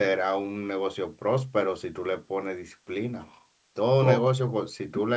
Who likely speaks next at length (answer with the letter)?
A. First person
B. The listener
A